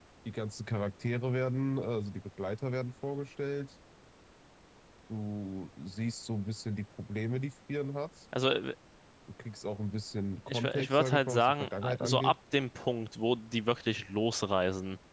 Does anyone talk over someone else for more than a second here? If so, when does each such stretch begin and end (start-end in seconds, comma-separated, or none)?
10.5-12.3